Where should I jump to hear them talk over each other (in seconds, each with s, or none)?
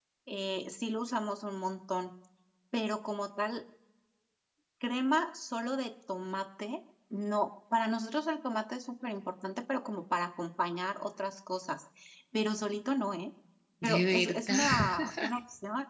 13.8 s